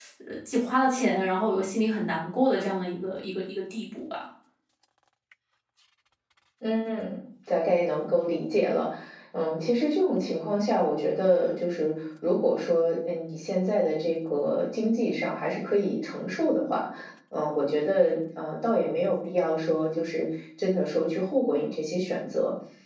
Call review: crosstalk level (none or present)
none